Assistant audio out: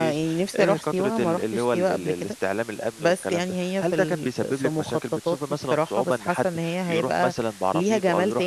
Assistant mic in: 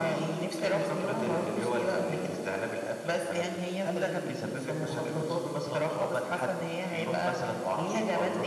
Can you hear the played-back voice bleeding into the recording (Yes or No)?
Yes